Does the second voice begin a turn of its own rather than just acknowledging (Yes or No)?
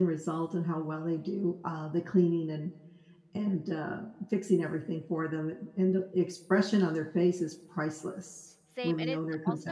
Yes